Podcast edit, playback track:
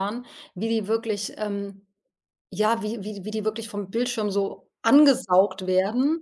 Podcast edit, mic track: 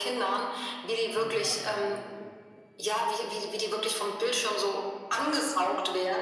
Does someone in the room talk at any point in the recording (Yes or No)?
Yes